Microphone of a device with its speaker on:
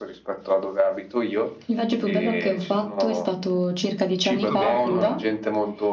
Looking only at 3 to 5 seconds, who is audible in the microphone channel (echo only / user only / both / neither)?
both